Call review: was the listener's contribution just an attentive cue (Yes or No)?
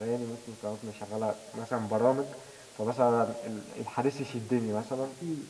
No